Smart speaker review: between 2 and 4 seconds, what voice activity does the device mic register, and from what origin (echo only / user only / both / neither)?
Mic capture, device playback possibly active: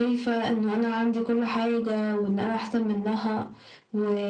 echo only